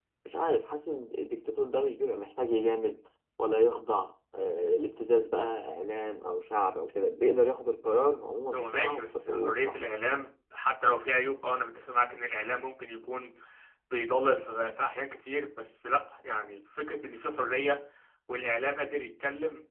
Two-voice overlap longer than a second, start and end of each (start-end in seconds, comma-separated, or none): 8.5-9.8